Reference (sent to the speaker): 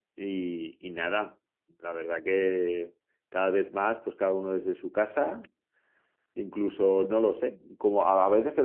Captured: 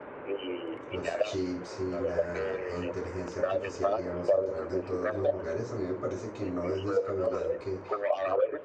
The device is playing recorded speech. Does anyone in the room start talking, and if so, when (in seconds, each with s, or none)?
0.9 s